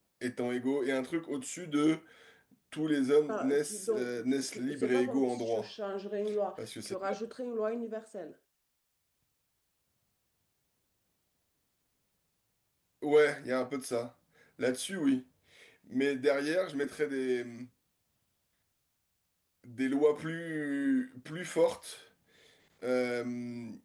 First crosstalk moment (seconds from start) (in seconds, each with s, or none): 3.3 s